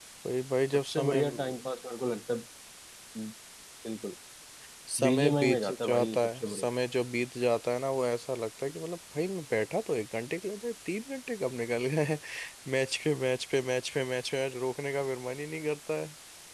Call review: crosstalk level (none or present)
present